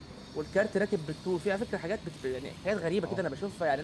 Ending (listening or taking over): listening